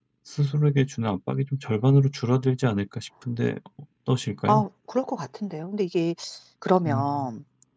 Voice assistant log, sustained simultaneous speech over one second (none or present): none